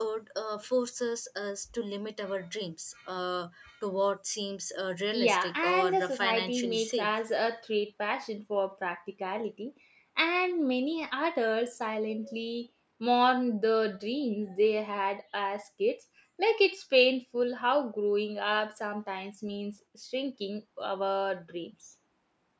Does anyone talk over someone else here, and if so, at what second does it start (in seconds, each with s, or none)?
5.1 s